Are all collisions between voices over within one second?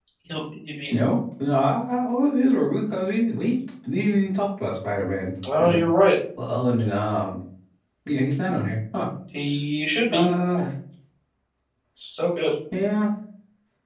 Yes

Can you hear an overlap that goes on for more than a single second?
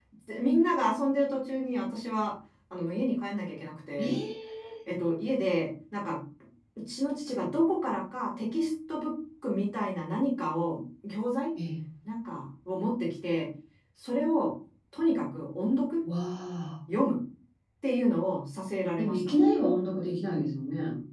No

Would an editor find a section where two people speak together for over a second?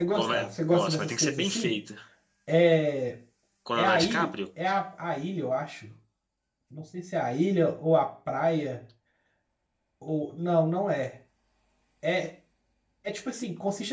Yes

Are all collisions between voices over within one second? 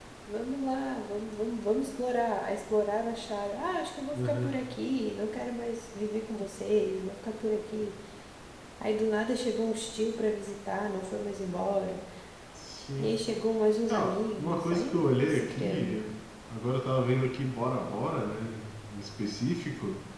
No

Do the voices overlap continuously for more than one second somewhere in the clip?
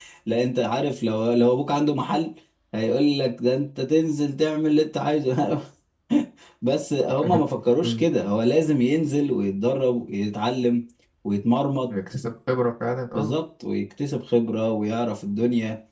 No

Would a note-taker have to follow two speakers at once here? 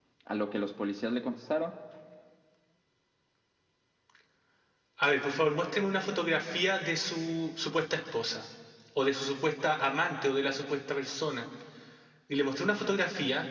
No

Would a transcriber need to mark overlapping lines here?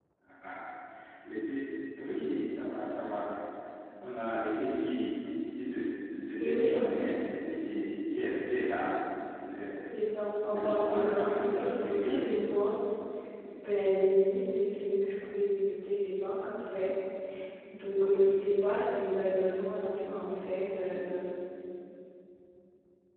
Yes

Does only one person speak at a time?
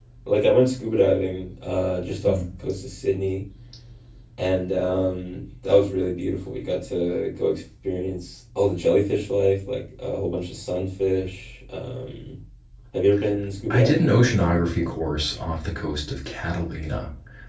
No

